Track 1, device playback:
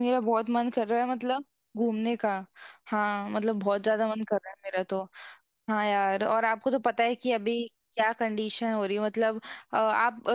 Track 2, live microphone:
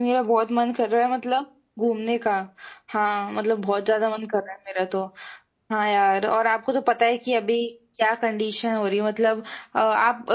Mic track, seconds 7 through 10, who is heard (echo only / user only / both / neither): echo only